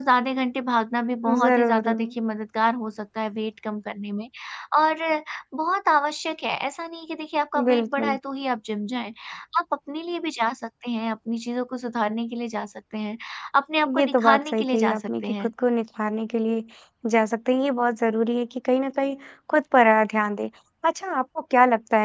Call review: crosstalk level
present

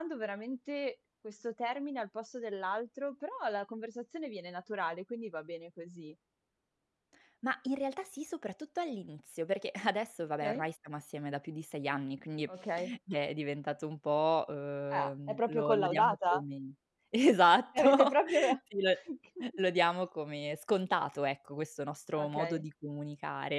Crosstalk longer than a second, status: present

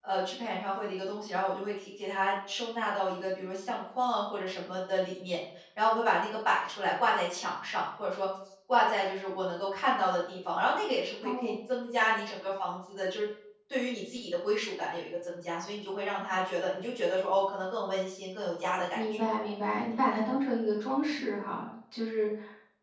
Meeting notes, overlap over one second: none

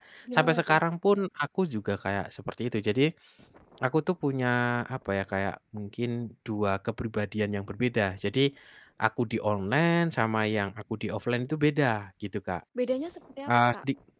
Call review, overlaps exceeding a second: none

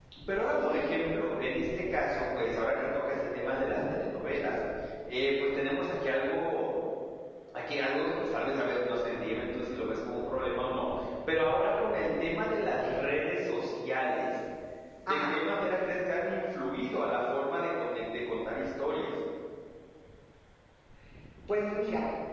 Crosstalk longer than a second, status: none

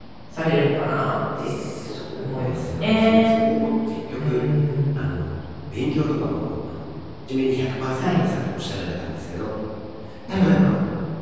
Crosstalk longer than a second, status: present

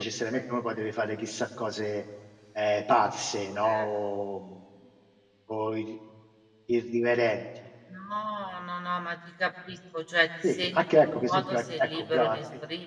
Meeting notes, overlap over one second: present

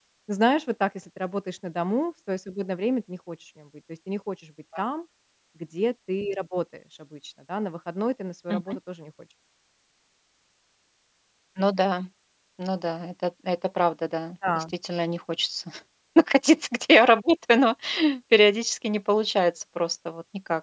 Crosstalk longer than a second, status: none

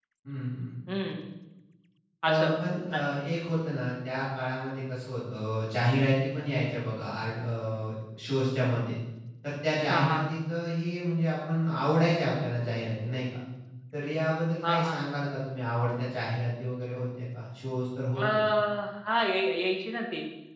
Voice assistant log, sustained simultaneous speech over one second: none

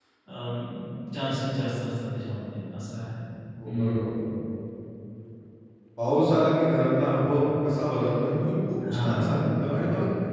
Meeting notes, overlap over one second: none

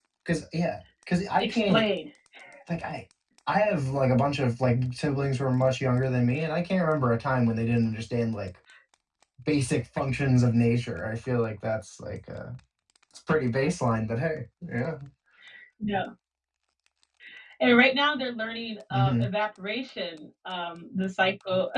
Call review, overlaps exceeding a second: none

